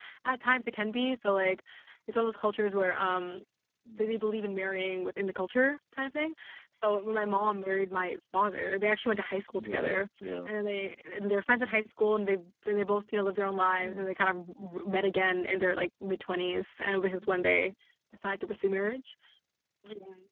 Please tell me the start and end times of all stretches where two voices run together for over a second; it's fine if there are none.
none

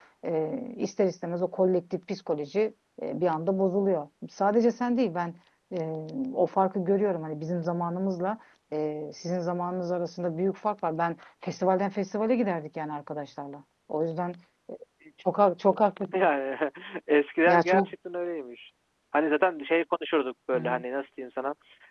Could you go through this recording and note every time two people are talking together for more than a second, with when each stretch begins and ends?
none

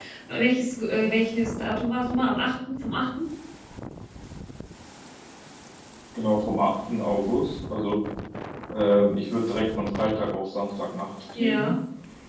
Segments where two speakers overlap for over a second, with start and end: none

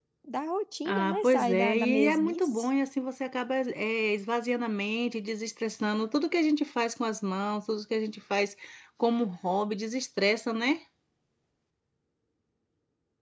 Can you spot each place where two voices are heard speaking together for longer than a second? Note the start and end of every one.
0.8-2.7

